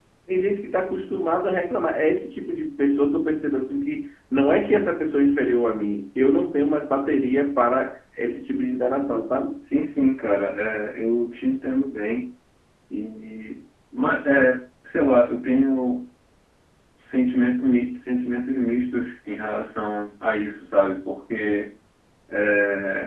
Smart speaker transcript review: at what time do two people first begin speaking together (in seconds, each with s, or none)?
none